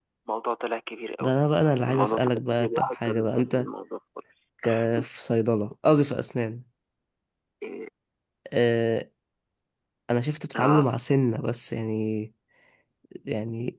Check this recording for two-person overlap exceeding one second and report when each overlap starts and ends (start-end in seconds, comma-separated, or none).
1.9-3.7